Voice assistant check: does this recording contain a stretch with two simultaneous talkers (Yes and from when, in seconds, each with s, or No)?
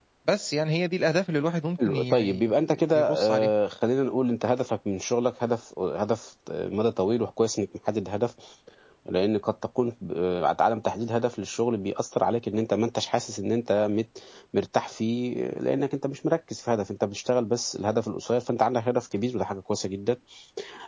Yes, from 1.8 s